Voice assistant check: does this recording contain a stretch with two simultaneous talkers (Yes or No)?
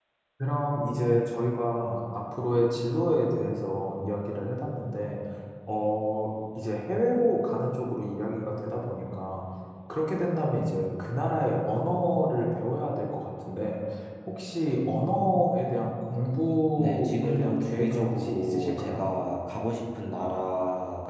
Yes